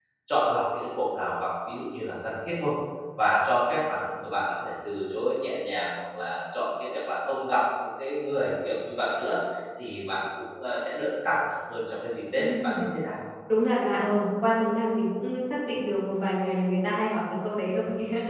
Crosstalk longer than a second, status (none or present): none